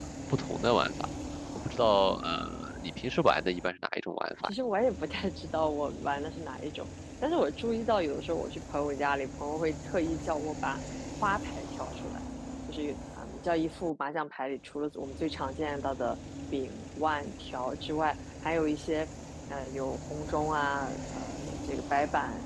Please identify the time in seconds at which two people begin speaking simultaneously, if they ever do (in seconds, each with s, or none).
none